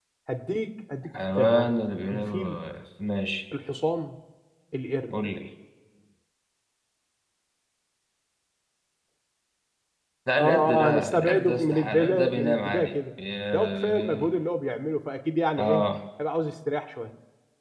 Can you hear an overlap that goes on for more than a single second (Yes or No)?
Yes